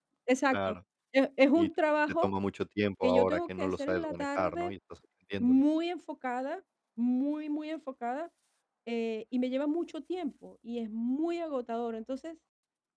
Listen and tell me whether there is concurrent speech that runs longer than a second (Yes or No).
Yes